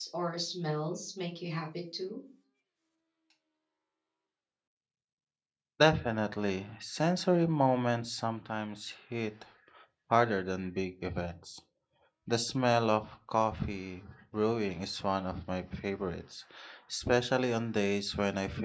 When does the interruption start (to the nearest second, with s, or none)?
none